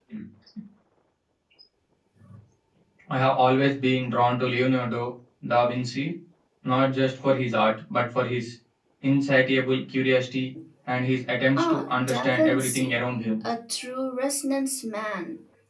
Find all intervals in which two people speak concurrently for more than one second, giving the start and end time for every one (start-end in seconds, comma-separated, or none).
11.6-12.9